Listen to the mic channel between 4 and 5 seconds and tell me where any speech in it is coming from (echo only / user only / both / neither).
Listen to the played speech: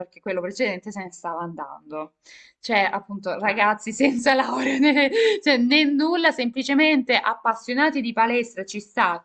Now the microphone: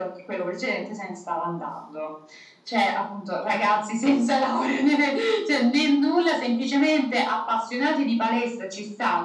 echo only